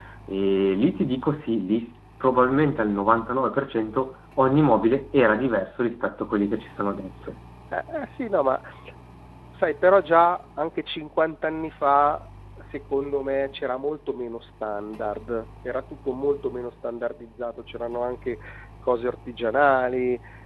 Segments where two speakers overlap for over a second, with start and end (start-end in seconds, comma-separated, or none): none